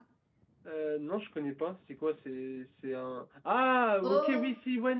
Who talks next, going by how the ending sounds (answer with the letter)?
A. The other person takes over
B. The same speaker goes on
B